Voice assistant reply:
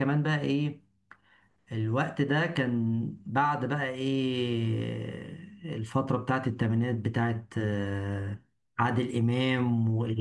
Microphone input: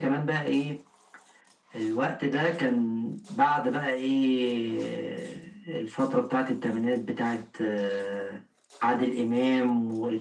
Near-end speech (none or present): none